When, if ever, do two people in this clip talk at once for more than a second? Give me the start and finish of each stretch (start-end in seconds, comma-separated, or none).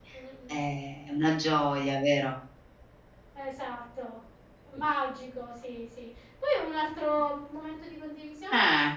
none